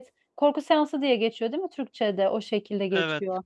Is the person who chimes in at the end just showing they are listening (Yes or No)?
Yes